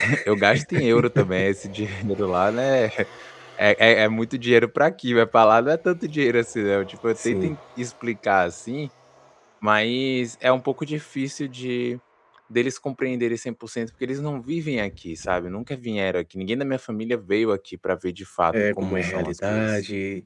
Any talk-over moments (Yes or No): Yes